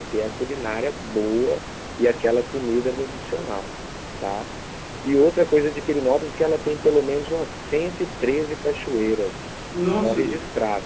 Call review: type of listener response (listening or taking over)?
listening